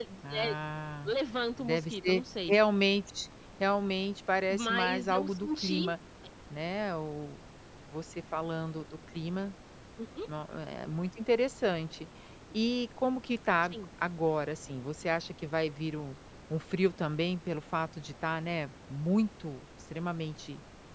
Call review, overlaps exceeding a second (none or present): present